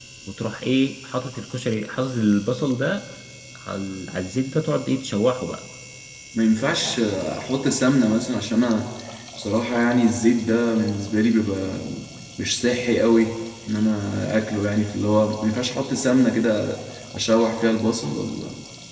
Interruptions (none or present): none